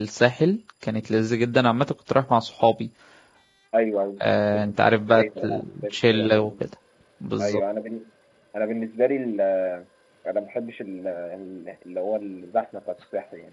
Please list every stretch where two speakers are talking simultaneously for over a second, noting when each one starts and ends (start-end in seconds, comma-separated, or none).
5.1-6.5